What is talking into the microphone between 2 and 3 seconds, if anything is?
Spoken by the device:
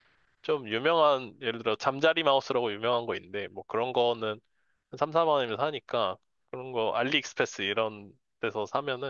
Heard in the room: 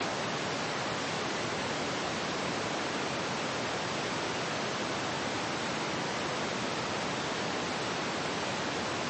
neither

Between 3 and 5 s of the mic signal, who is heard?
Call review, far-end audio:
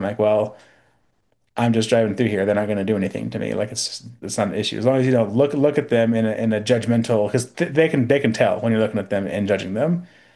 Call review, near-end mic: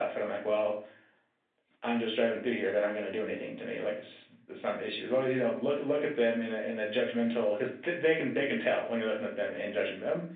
echo only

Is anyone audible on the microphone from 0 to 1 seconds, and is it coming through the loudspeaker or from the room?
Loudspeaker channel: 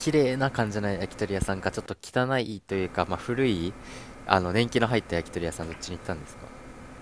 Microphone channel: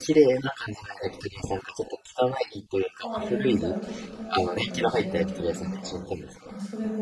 echo only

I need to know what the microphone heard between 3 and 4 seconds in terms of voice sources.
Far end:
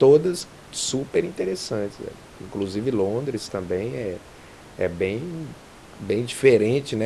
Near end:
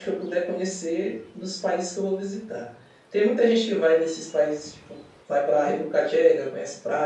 user only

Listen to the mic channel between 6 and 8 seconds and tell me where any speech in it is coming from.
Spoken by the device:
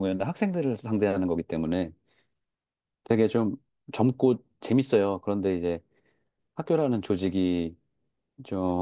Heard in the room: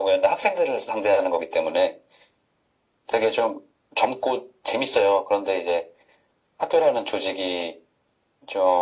echo only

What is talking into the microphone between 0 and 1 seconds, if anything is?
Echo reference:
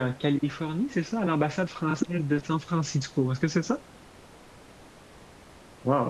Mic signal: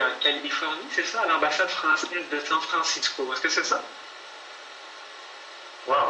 echo only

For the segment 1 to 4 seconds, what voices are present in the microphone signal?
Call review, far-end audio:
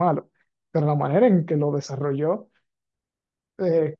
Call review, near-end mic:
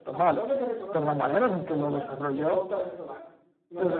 both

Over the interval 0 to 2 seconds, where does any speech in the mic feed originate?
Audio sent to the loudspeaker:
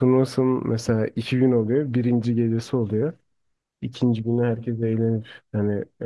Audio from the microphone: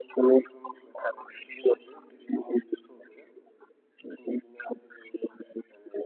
echo only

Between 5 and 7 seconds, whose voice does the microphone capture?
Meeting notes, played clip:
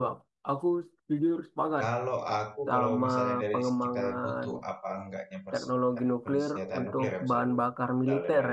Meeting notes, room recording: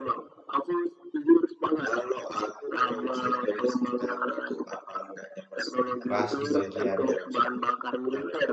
both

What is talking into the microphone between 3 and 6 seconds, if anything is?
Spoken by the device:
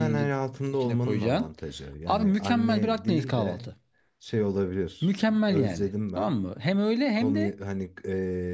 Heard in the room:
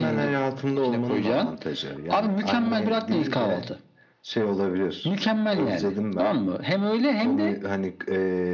echo only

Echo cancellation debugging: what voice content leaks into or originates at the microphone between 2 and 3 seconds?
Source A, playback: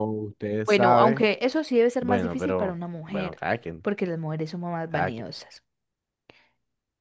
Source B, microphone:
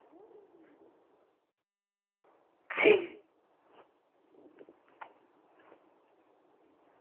user only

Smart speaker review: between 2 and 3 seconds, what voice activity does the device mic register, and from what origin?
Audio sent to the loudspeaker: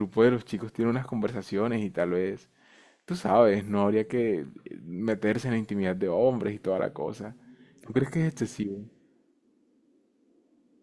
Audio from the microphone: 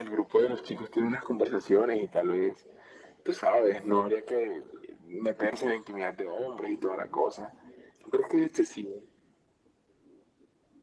echo only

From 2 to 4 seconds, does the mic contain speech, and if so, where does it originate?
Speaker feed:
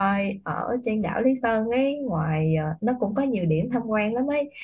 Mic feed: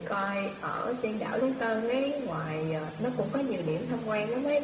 echo only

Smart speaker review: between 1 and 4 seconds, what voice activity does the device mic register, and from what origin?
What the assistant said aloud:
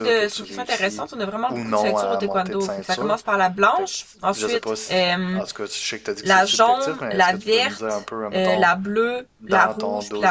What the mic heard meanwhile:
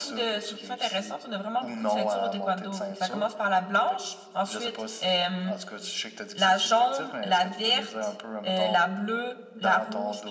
echo only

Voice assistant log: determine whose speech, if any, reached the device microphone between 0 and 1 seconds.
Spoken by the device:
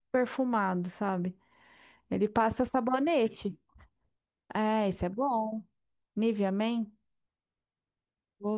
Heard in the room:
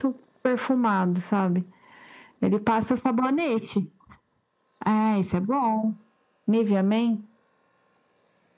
echo only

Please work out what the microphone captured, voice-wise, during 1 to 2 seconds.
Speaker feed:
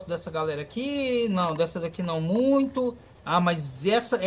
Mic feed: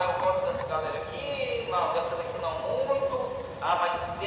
echo only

